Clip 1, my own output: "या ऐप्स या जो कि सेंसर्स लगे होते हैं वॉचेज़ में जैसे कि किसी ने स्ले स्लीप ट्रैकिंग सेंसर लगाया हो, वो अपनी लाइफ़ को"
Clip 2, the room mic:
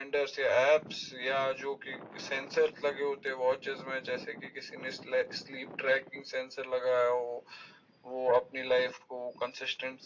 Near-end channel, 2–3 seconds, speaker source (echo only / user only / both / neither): echo only